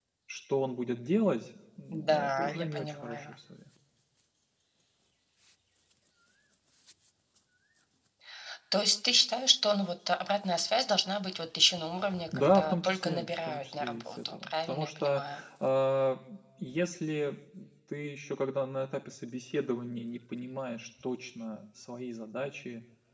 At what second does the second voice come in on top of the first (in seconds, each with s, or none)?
1.9 s